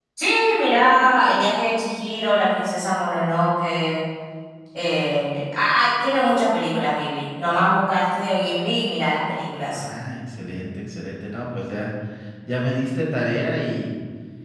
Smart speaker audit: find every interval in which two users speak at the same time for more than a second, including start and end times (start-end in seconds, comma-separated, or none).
none